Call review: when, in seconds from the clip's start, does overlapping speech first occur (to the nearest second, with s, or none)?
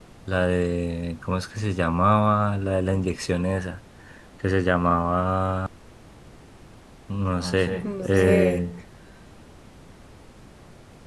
7 s